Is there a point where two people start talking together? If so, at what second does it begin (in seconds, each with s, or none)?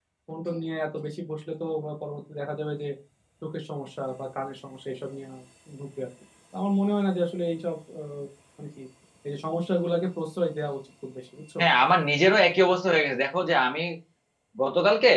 none